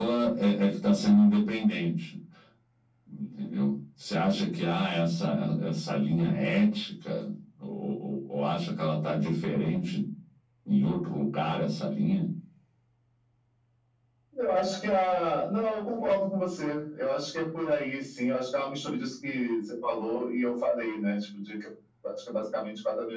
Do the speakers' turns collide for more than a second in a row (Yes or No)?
No